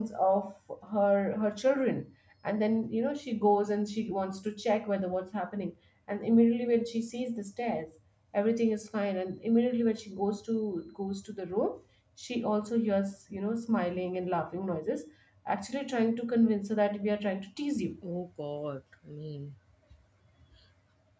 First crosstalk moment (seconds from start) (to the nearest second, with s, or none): none